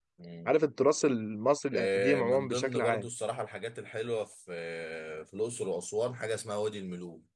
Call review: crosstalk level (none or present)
present